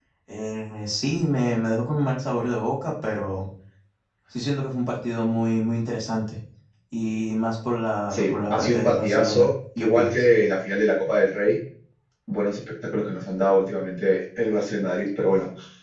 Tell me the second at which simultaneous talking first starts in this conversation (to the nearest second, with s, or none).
8 s